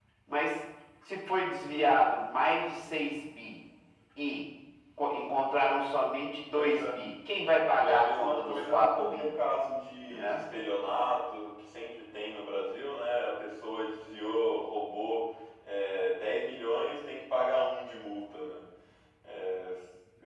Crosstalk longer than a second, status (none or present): present